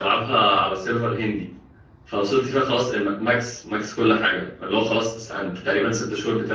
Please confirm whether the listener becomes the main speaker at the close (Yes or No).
No